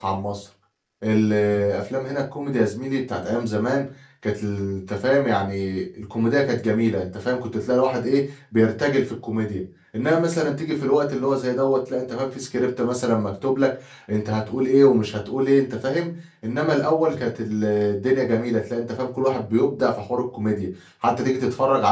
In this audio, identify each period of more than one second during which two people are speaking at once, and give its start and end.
none

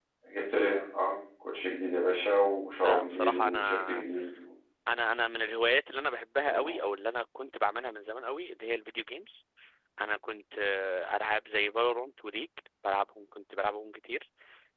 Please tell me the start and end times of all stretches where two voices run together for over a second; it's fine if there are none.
2.8-4.0

